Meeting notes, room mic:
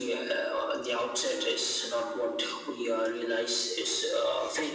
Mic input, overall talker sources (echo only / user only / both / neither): echo only